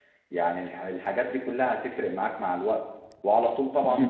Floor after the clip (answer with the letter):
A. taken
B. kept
B